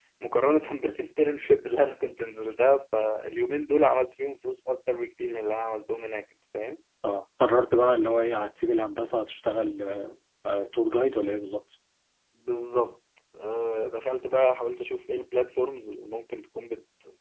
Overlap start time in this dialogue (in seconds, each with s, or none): none